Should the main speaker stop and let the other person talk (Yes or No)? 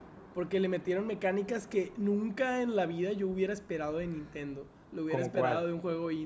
No